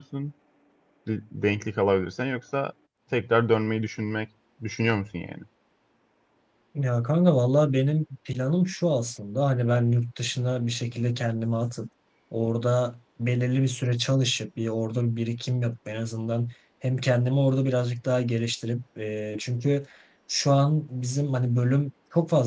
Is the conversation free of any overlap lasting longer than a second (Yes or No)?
Yes